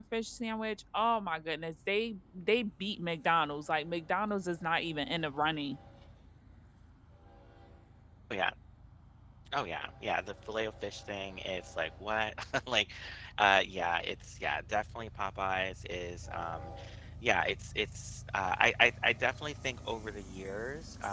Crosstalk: none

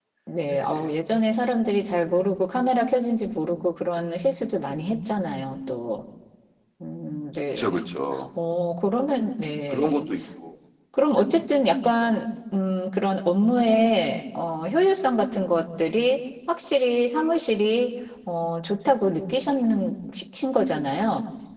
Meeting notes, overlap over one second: none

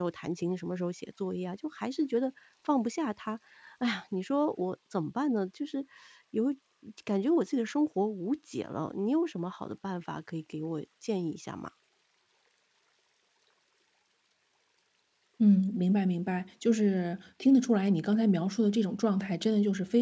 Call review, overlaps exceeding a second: none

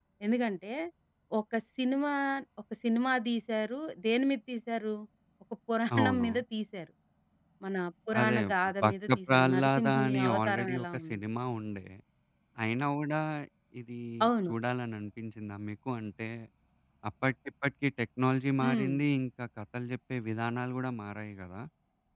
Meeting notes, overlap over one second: present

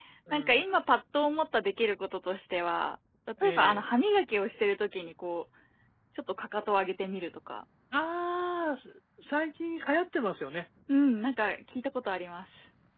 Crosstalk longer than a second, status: none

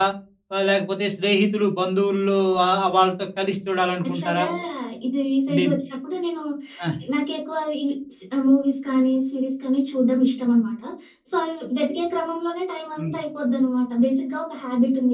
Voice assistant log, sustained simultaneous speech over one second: none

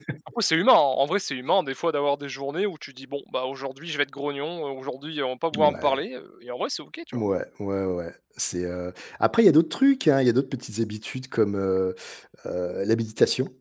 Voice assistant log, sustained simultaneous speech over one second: none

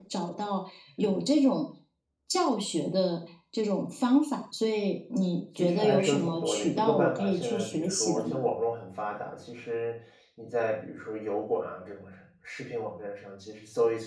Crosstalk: present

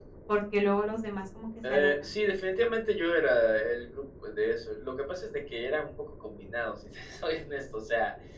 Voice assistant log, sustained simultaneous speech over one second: none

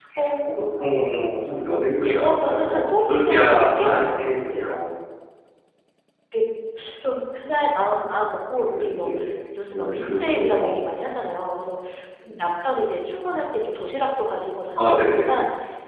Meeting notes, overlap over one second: present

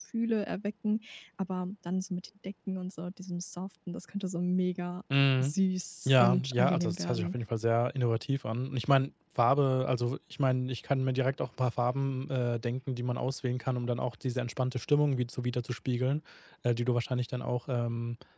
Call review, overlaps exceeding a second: present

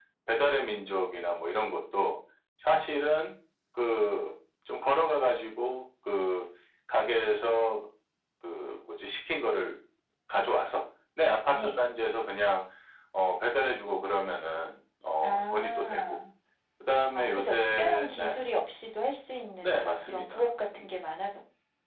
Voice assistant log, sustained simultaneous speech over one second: present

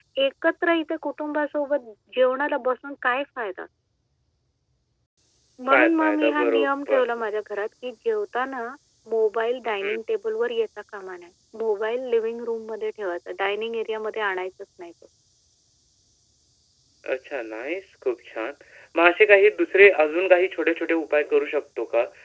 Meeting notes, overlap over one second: present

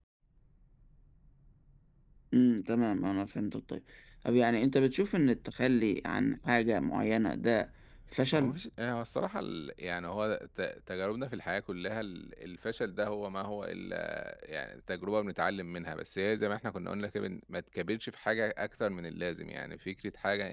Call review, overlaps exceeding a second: none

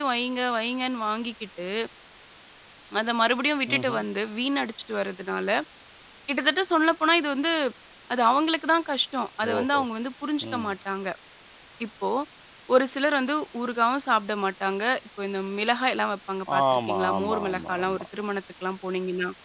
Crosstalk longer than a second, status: present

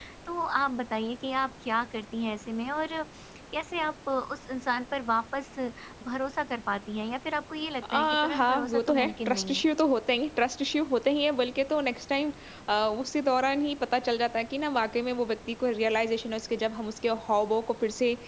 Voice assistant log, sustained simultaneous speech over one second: present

